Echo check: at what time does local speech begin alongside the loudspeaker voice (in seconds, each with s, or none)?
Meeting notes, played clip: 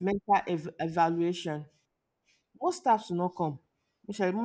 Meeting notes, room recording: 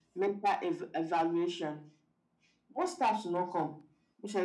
none